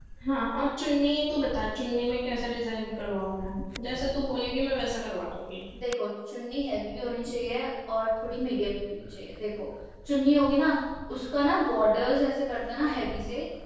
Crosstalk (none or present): none